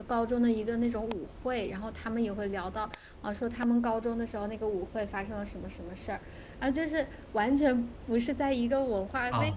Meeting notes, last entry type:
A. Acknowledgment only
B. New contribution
B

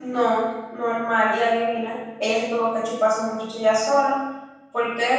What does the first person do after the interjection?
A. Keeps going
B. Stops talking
B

